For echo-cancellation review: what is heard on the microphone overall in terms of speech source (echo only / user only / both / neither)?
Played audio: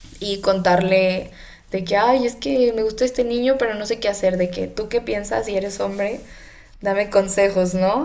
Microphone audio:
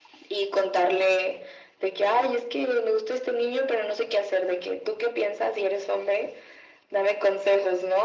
echo only